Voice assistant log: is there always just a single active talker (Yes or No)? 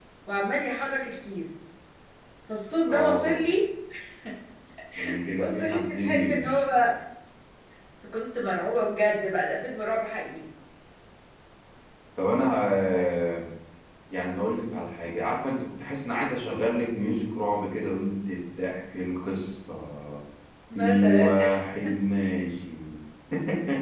No